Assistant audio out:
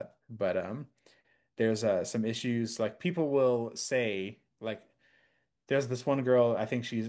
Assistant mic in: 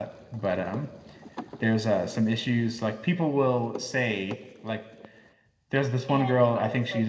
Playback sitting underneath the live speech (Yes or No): No